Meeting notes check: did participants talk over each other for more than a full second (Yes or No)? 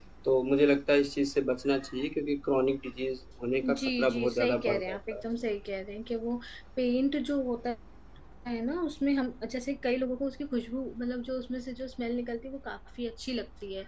Yes